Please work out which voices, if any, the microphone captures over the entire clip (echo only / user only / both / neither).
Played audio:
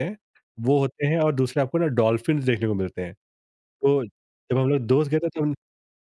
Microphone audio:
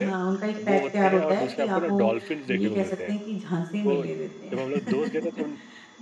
both